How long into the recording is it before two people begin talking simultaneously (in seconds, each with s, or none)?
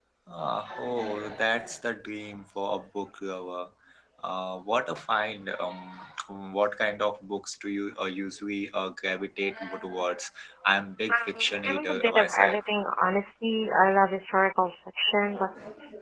11.1 s